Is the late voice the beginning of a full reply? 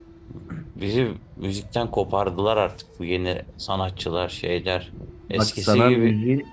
Yes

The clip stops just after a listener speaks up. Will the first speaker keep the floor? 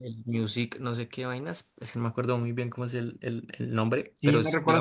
No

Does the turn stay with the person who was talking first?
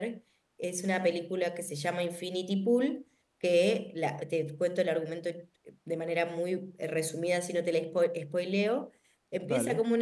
Yes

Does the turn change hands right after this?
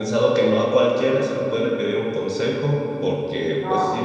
No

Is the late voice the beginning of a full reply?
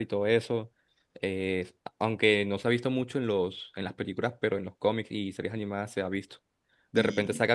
No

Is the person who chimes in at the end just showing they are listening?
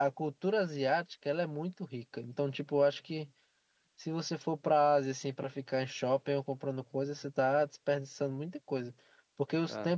Yes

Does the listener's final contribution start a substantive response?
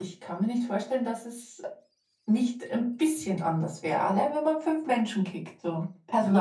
Yes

